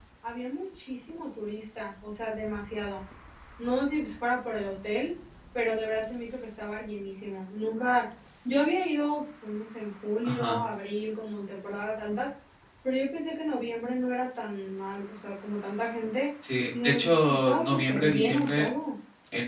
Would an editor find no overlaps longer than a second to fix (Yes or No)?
No